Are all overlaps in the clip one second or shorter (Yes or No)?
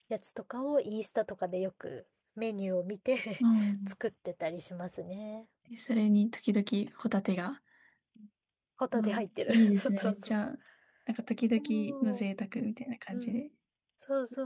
No